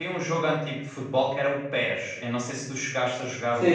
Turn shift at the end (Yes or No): Yes